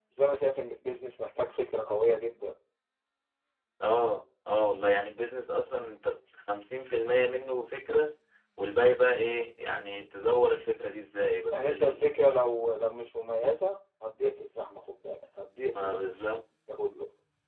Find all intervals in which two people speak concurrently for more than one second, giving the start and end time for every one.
none

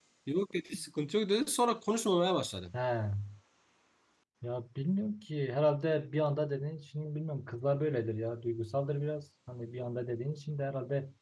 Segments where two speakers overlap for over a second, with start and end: none

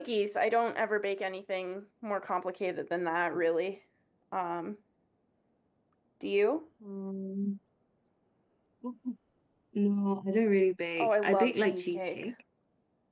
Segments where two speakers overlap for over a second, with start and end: 11.0-12.2

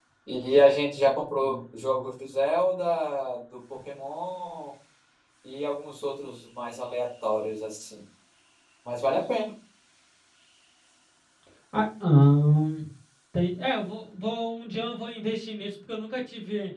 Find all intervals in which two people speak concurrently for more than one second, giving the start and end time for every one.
none

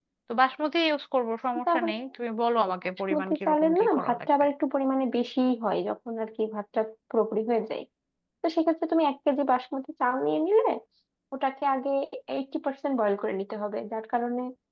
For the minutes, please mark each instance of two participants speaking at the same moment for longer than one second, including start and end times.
3.1-4.4

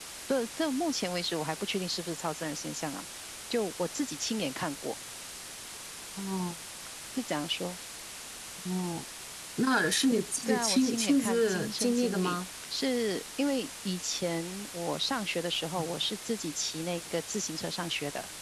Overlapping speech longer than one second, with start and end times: 10.5-12.4

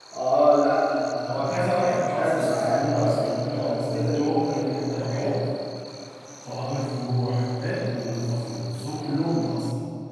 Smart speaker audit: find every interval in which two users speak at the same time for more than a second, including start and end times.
1.3-5.4

